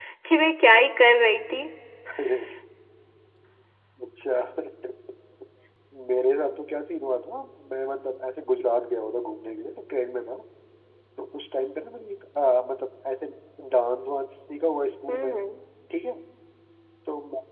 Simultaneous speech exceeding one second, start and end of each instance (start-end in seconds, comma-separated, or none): none